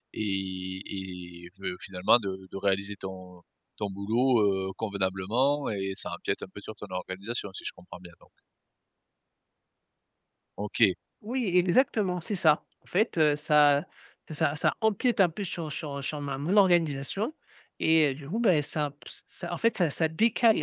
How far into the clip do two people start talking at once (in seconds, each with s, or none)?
none